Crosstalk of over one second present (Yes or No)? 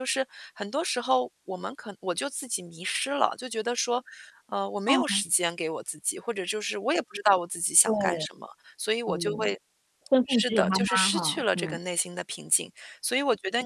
Yes